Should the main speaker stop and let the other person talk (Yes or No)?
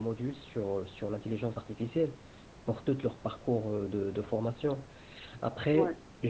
No